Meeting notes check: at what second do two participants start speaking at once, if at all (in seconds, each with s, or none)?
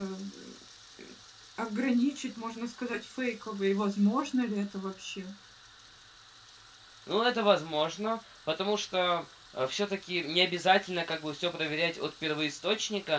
none